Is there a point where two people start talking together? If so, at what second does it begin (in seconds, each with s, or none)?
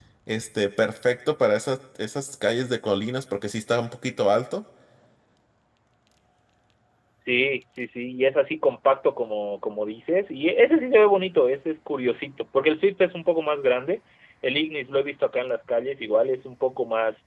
none